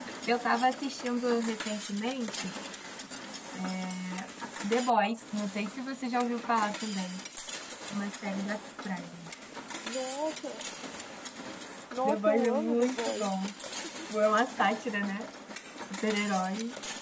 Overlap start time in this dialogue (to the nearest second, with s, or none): 12 s